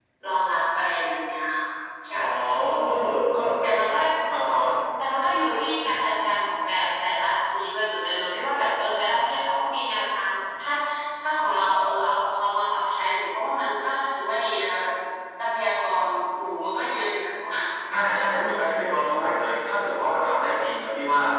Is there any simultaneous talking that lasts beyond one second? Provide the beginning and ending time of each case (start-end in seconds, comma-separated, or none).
none